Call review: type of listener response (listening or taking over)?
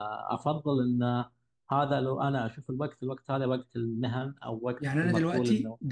taking over